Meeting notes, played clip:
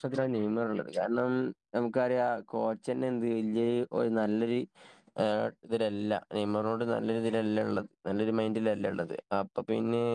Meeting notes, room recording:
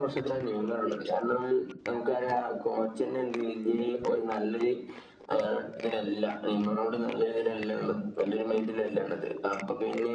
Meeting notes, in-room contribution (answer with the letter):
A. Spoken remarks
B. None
B